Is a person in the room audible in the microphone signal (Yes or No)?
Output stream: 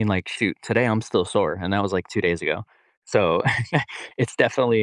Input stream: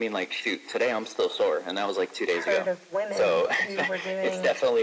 Yes